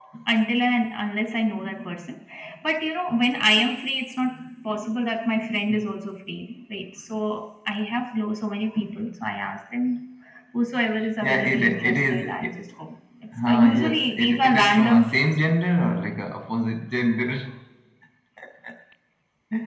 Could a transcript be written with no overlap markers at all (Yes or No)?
No